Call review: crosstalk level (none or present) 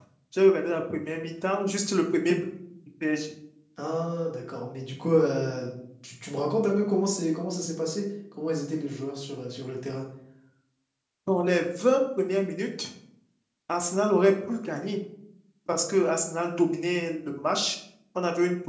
none